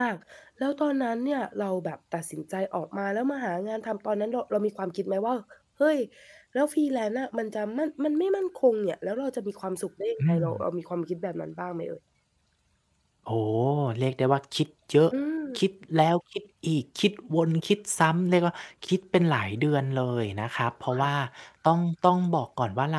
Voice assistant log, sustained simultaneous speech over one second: none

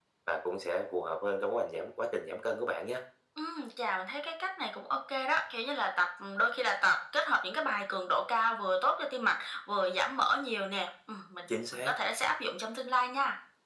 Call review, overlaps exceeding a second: none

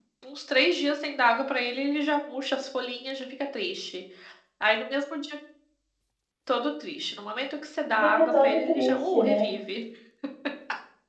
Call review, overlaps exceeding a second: present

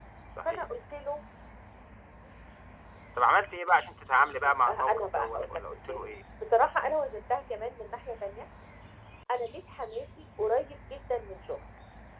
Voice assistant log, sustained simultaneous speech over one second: present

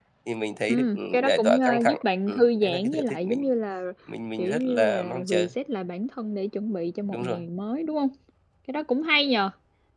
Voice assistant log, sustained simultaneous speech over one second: present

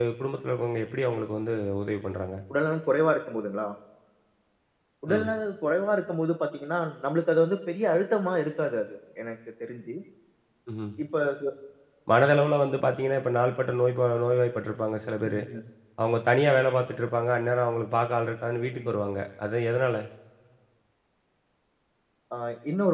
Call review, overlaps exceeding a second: none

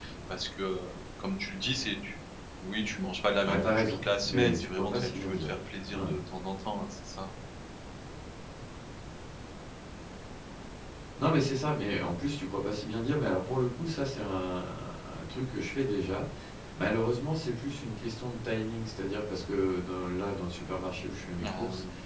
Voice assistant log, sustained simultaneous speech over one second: present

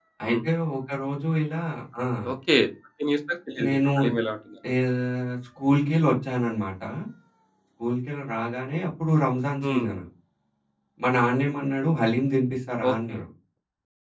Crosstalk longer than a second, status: none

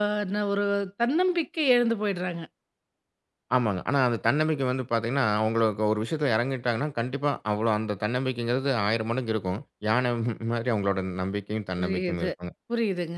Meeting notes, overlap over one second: none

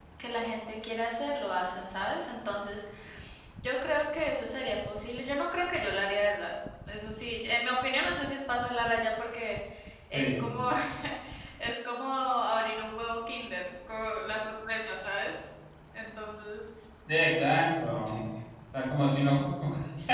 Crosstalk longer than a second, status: none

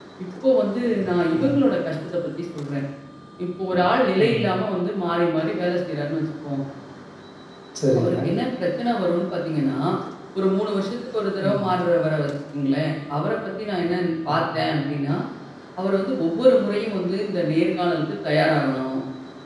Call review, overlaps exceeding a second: none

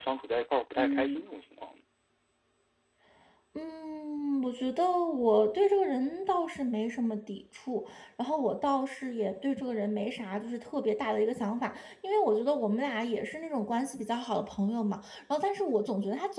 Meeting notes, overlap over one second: none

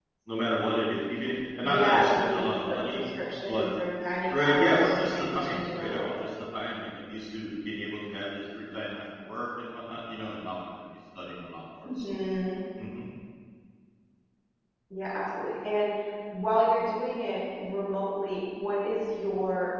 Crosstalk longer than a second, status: present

